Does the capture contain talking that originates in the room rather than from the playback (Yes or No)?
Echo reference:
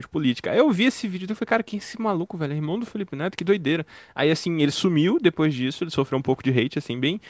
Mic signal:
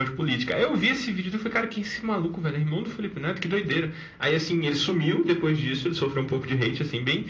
No